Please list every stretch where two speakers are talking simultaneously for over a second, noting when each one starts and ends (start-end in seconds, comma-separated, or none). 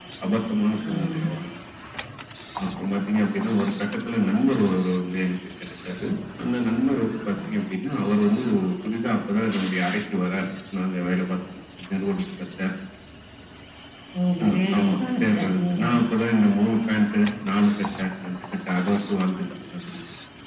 14.4-15.9